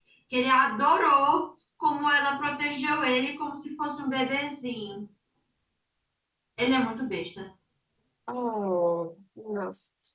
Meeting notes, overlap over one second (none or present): none